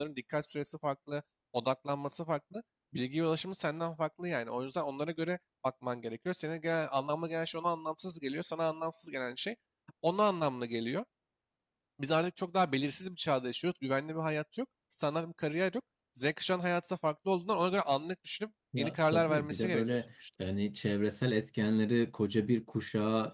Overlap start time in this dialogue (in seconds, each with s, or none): 18.7 s